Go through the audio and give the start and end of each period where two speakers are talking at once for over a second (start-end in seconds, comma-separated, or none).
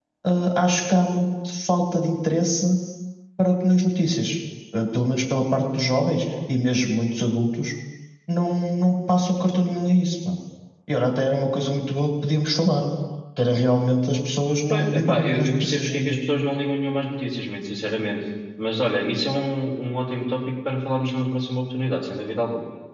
14.7-16.2